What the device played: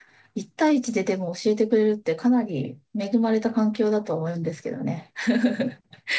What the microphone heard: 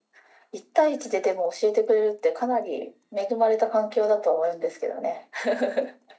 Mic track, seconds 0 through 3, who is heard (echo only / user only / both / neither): echo only